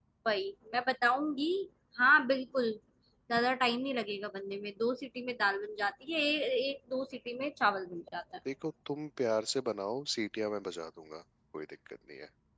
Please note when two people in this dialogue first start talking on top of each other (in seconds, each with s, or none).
none